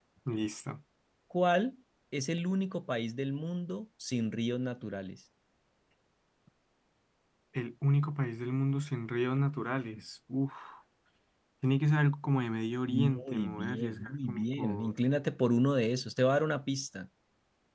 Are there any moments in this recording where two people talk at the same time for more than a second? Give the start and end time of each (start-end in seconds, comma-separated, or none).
12.9-14.9